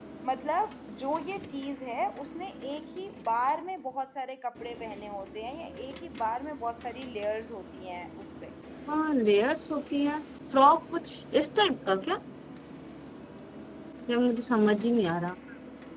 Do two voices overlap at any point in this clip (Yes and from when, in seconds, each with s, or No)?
No